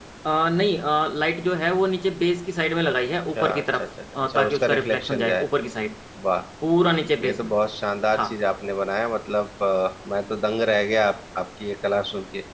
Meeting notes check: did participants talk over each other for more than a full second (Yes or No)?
Yes